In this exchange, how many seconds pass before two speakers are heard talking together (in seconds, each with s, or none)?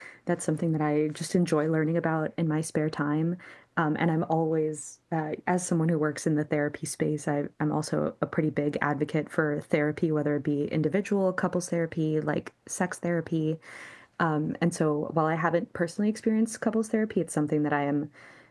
none